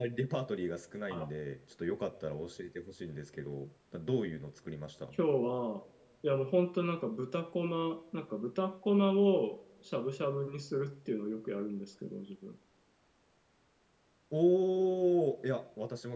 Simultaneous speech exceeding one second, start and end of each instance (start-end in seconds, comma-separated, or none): none